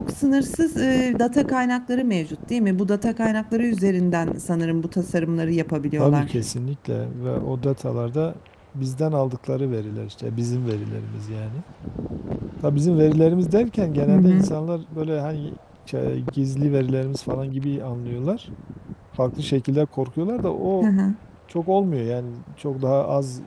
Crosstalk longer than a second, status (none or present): none